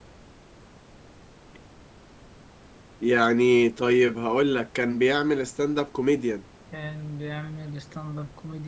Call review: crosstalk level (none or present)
none